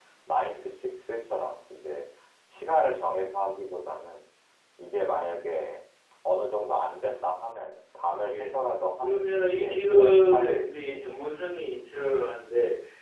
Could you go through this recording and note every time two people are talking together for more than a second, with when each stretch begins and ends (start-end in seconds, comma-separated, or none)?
9.0-11.1